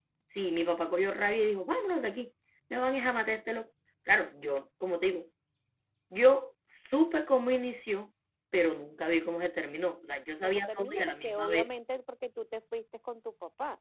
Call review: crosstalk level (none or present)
present